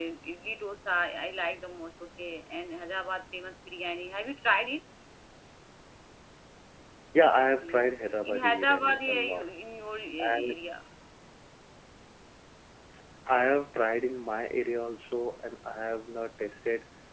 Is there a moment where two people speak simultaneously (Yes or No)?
Yes